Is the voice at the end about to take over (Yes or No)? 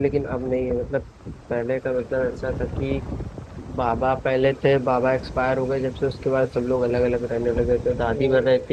No